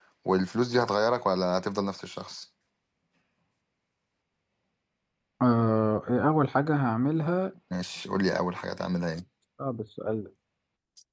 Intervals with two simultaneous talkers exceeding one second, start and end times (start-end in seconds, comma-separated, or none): none